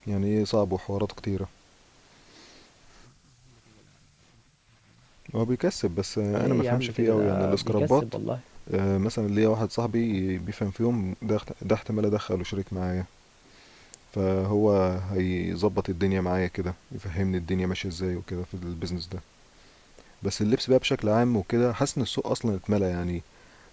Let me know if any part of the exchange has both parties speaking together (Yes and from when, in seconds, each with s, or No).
Yes, from 6.3 s